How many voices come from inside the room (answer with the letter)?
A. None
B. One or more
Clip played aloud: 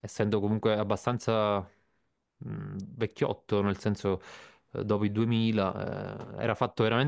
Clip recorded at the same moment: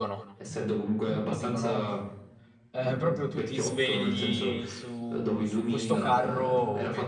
B